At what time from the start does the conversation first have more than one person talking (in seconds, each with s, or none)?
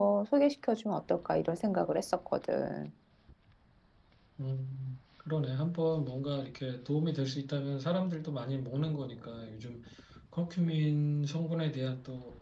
none